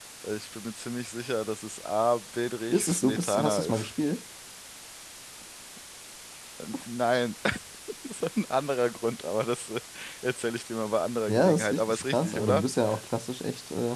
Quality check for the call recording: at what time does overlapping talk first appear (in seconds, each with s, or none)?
2.7 s